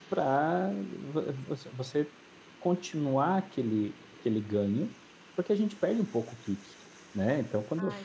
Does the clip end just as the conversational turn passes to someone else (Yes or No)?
No